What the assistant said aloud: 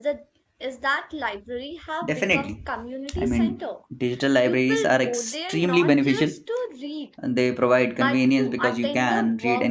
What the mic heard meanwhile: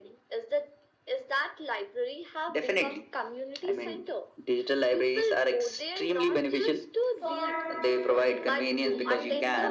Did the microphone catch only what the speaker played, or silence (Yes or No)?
No